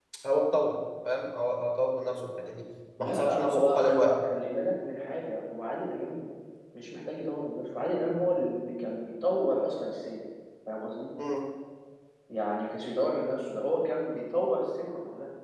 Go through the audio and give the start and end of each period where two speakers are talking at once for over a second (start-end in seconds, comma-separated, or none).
3.0-4.2